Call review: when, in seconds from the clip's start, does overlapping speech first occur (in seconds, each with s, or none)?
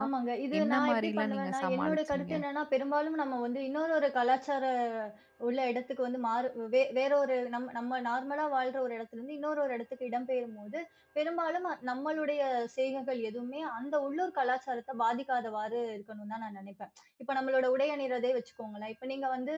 0.6 s